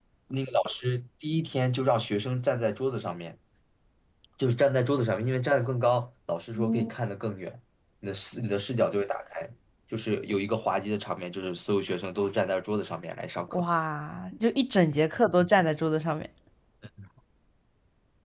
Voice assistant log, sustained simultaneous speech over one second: none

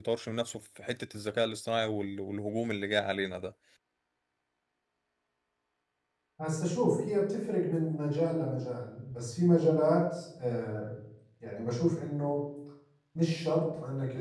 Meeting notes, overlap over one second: none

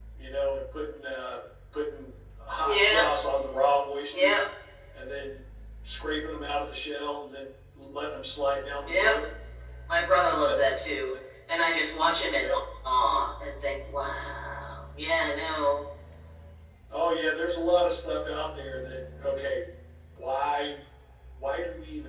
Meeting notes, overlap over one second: none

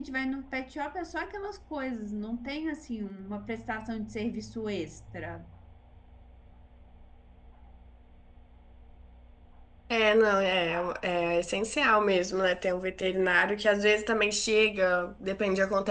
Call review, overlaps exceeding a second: none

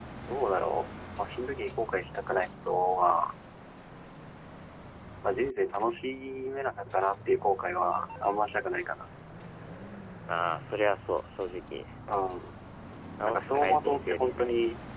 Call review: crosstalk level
present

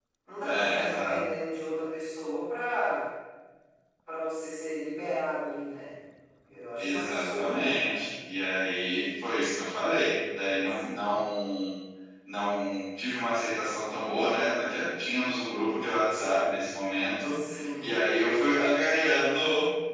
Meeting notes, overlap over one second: present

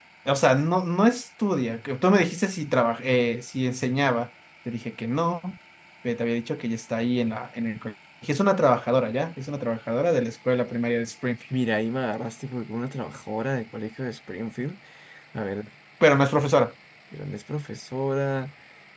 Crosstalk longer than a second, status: none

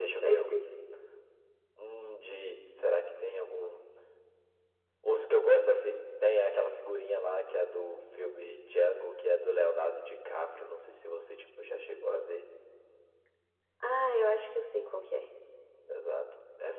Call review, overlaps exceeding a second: none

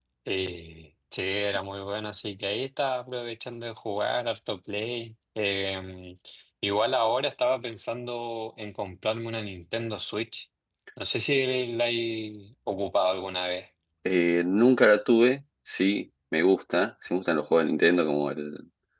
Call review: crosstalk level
none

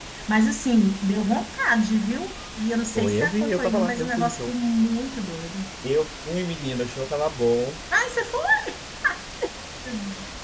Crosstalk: present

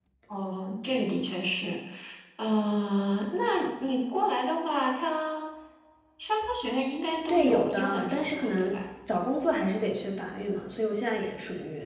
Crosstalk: present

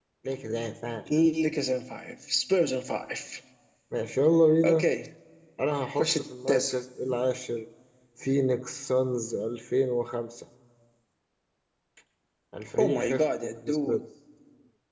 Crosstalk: present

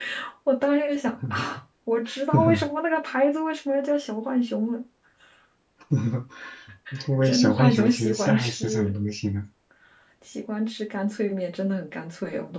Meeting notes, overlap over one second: present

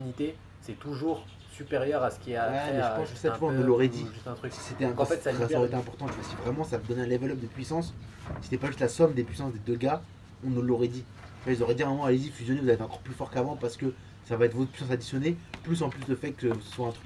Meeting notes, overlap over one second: present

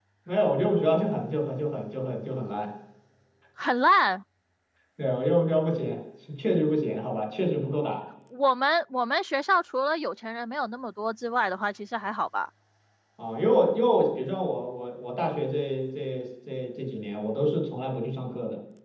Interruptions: none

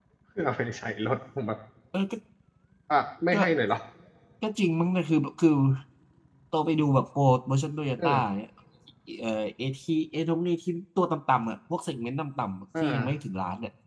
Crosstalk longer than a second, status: none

